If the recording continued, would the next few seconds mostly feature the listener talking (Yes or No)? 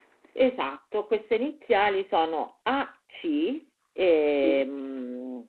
No